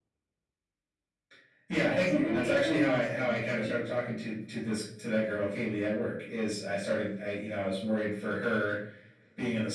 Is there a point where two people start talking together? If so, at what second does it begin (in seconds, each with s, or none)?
1.8 s